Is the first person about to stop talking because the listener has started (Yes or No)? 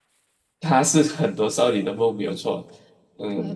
Yes